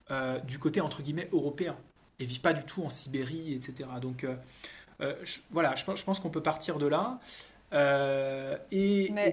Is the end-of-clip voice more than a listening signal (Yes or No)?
Yes